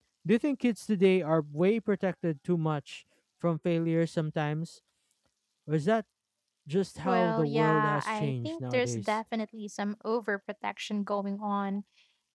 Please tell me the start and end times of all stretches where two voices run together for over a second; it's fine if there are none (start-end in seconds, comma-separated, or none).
7.0-9.1